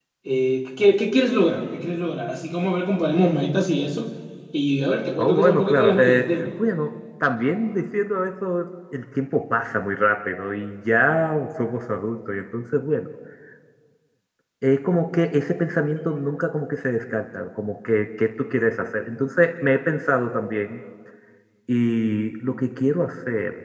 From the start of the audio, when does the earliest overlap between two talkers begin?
5.2 s

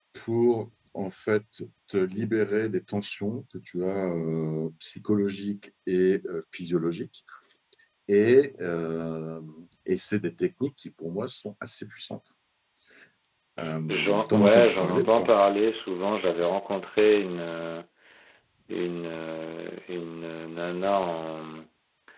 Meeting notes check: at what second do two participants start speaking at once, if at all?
13.9 s

